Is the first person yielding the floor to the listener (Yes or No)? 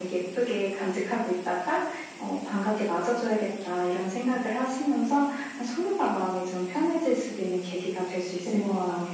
Yes